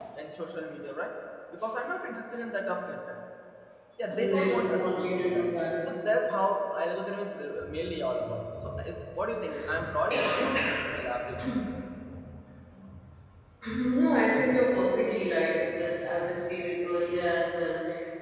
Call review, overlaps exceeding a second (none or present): present